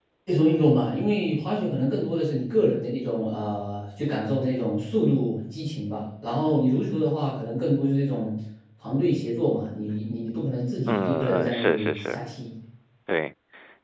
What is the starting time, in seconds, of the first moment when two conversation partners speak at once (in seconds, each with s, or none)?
10.9 s